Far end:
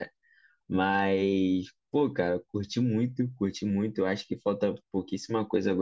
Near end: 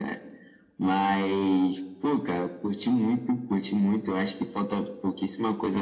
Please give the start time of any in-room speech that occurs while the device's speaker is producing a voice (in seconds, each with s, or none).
none